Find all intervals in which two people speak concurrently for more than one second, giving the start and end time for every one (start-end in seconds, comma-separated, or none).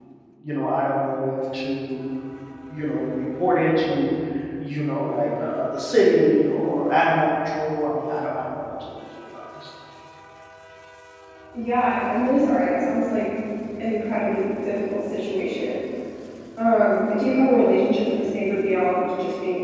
none